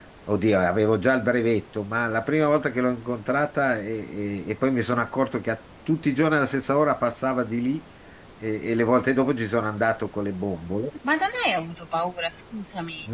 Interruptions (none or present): none